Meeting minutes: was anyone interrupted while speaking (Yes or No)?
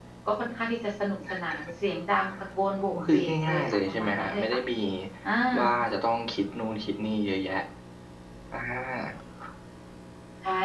Yes